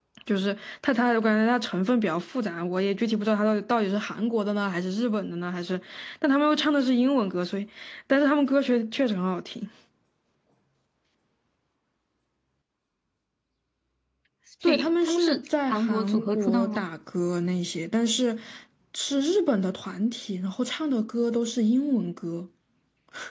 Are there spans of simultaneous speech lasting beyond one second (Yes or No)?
Yes